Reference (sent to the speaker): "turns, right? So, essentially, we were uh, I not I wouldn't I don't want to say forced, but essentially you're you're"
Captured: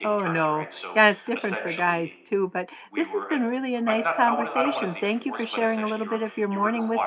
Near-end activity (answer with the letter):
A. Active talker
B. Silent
A